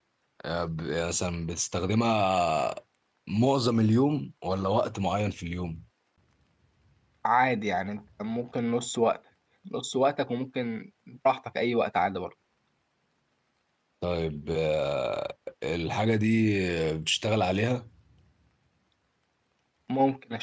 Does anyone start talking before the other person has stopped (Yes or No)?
No